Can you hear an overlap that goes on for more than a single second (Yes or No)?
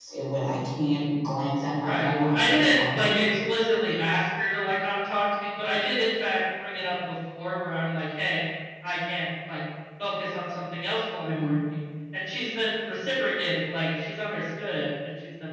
Yes